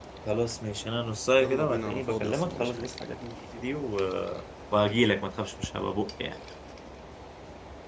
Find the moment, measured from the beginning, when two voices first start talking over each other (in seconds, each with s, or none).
1.4 s